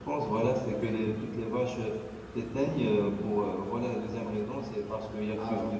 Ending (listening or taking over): listening